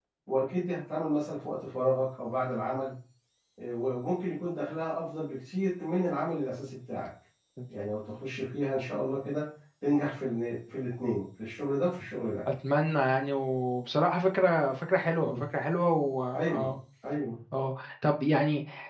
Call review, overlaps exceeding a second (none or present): none